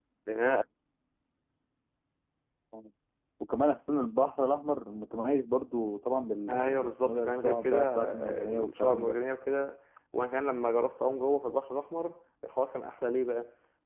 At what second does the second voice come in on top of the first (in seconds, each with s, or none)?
6.5 s